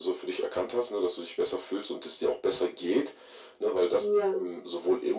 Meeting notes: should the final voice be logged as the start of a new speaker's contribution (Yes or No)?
No